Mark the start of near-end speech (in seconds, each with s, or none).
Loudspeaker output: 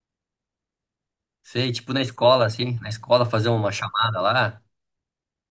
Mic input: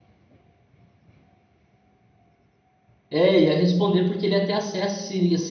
3.1 s